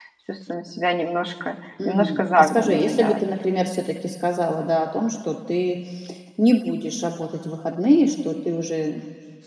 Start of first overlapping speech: 2 s

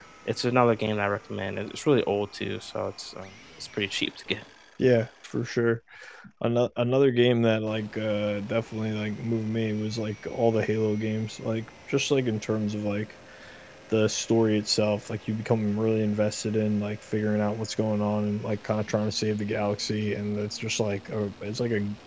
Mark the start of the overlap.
none

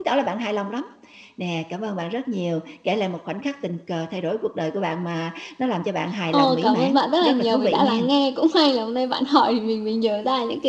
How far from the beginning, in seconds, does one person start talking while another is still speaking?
6 s

